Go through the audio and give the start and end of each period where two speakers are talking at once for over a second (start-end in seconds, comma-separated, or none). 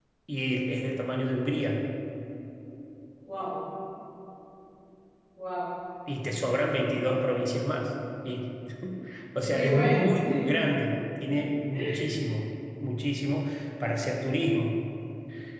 none